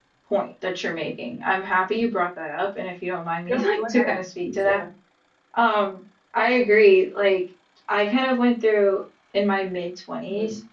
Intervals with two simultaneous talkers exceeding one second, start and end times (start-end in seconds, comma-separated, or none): 3.5-4.8